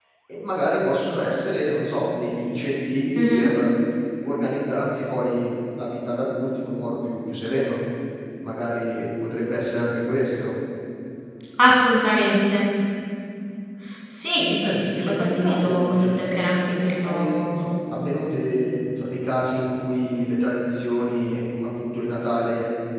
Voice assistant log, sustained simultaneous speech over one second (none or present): present